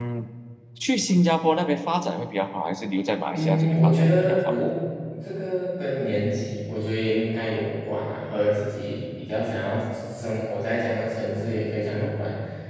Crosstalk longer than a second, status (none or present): present